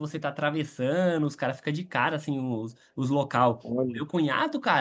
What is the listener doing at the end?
listening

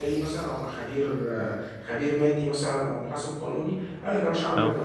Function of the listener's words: listening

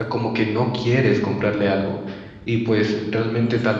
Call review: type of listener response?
listening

